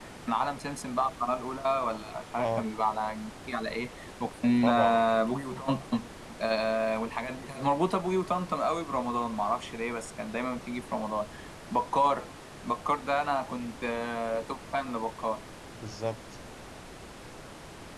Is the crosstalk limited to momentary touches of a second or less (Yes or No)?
Yes